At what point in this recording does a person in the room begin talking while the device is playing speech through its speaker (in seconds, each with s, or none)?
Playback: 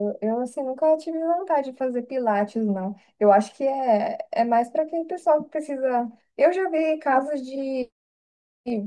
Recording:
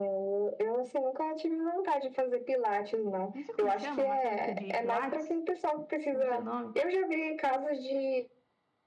3.3 s